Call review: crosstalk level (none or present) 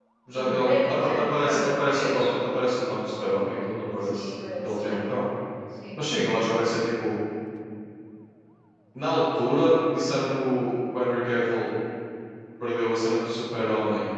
present